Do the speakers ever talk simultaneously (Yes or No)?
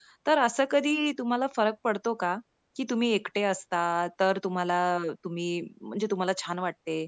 No